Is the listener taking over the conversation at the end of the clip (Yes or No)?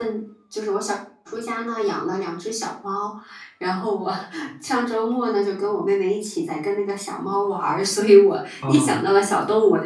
No